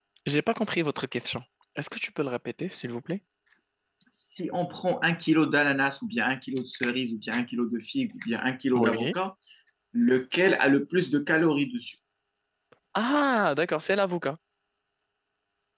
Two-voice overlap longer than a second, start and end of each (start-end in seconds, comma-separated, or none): none